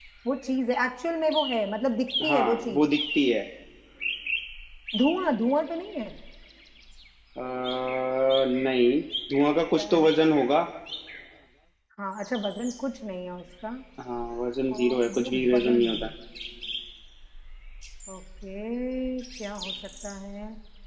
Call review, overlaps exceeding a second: present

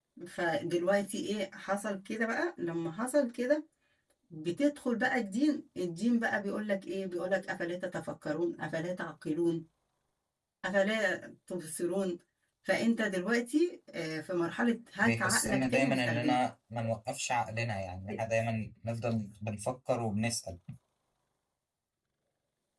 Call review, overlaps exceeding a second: present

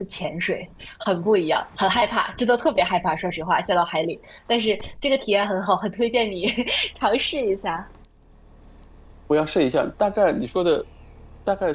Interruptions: none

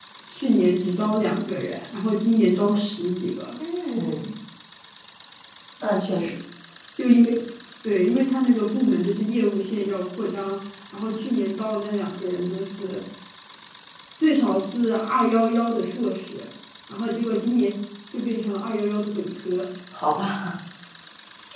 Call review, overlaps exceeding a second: none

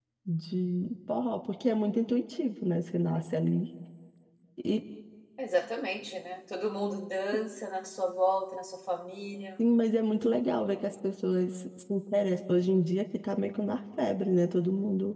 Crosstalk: none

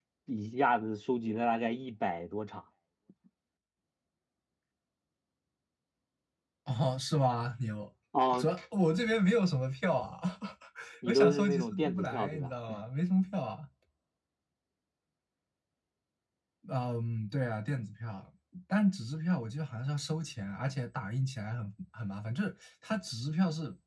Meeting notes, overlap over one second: present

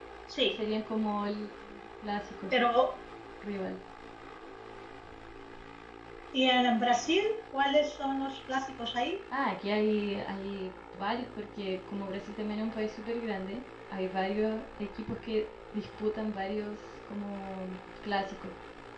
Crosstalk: none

